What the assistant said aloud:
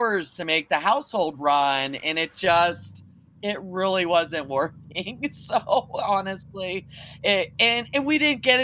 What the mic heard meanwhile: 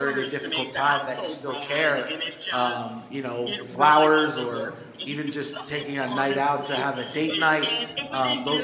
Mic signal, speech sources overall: both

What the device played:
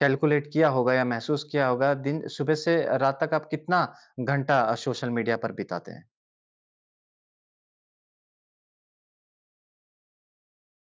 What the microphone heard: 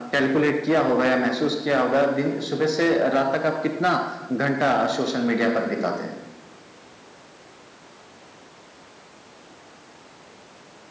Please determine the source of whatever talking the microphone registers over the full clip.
echo only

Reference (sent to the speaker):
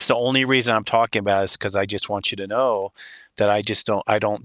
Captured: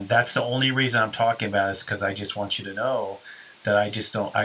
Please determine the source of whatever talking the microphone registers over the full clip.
echo only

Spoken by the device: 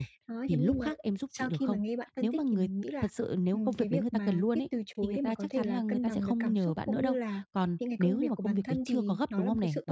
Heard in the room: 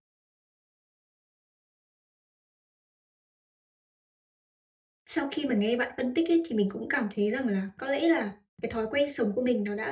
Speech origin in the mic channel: user only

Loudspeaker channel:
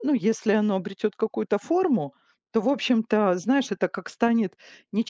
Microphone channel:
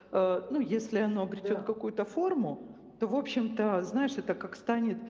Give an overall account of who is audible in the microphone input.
both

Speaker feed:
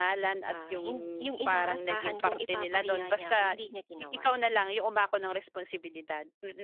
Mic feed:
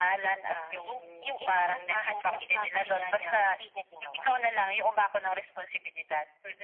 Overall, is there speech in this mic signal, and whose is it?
echo only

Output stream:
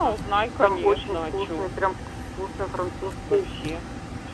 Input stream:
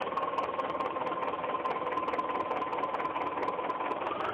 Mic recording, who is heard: neither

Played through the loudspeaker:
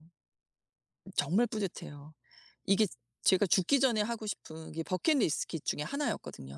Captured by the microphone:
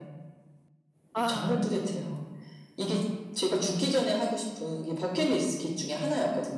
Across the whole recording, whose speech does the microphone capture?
both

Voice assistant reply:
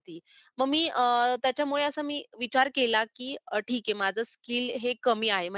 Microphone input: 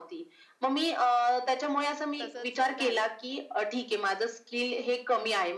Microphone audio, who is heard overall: both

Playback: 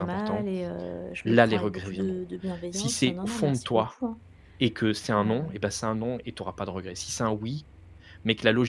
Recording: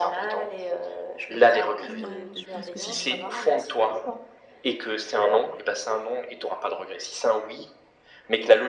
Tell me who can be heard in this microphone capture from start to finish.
both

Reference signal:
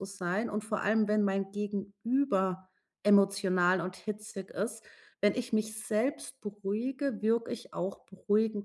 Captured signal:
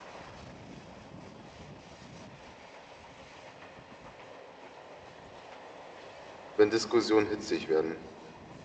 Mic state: user only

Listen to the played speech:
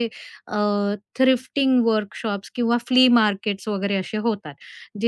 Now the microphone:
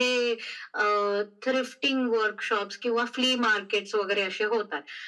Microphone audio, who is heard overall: echo only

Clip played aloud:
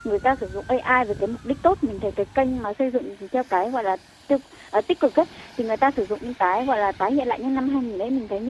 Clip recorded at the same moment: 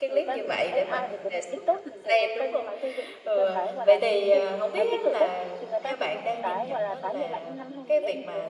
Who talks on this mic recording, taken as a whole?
both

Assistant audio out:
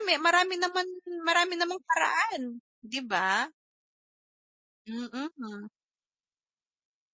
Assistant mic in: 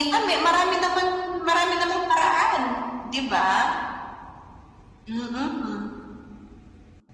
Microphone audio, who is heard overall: echo only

